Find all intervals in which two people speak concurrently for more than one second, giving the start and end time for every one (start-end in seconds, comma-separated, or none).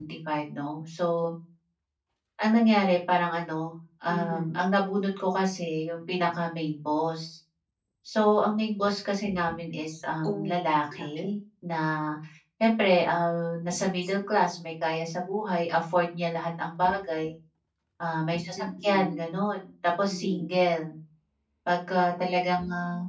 none